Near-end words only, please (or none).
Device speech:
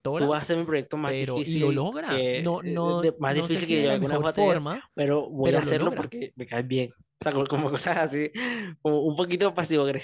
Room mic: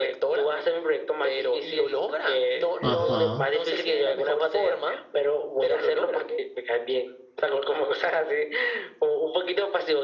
ajá.